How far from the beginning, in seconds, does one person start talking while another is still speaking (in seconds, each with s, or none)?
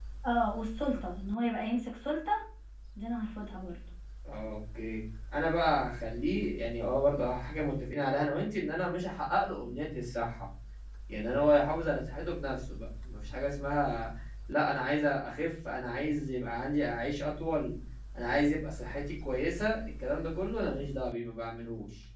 none